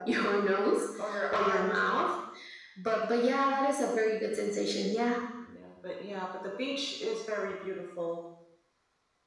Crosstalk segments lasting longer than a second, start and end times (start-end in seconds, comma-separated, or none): none